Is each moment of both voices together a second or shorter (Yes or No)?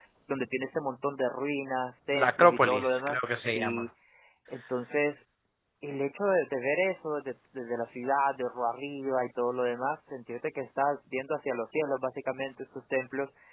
No